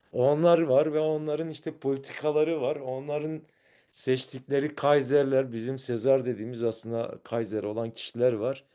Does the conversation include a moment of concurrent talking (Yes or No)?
No